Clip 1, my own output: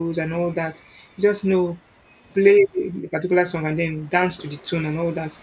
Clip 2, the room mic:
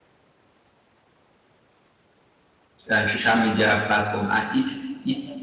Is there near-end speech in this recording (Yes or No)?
Yes